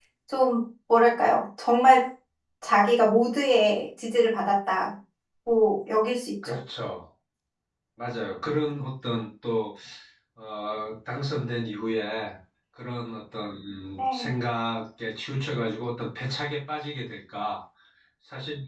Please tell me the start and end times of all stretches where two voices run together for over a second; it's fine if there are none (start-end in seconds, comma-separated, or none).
none